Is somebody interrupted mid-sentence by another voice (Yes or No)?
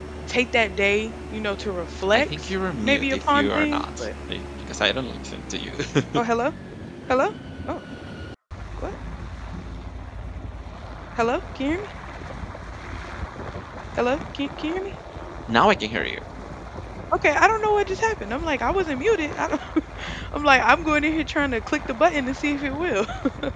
Yes